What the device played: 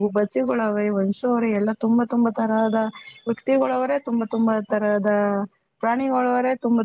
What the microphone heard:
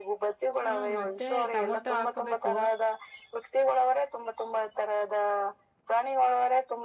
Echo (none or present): present